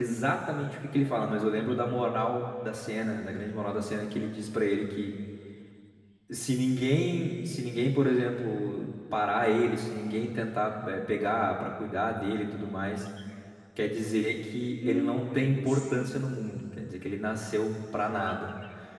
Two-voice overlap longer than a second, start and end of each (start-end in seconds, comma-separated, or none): 14.9-16.3